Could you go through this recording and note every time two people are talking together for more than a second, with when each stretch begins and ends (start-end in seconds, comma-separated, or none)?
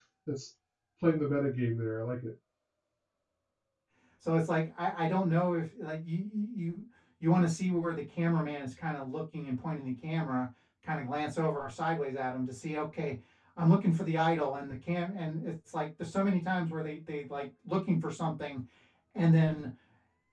none